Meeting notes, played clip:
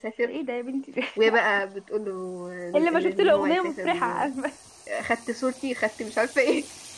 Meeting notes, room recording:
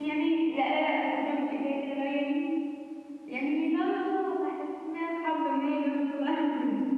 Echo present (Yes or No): No